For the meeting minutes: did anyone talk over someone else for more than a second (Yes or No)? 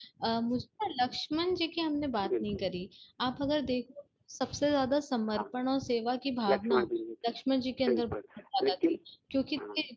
No